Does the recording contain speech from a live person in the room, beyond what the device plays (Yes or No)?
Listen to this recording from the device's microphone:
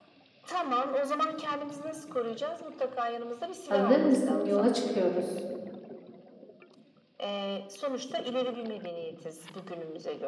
Yes